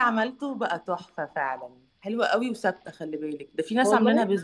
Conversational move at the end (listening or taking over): taking over